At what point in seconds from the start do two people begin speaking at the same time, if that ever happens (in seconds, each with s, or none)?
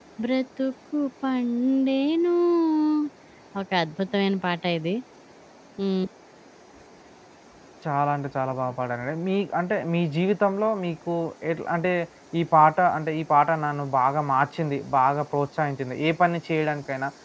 none